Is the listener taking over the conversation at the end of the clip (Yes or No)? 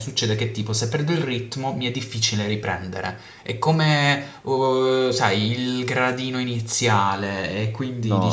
Yes